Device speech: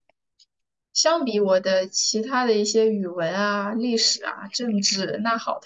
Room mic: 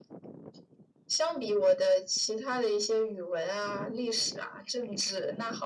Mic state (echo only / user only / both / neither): echo only